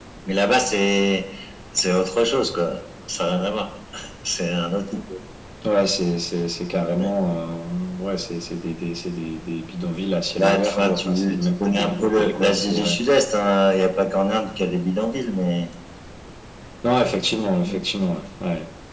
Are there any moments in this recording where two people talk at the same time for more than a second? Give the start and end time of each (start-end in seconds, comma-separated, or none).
10.4-13.0